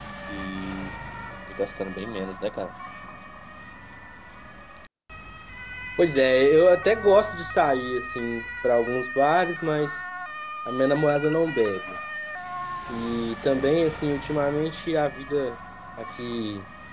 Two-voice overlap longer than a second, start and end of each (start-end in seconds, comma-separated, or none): none